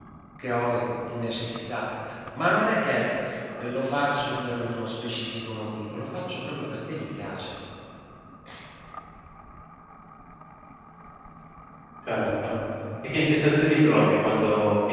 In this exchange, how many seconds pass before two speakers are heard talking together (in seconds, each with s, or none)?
none